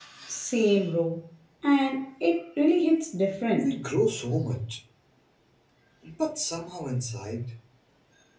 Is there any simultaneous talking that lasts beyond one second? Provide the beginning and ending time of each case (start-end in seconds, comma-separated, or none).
none